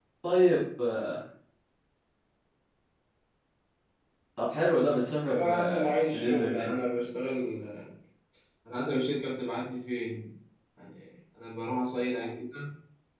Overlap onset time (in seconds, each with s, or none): 5.3 s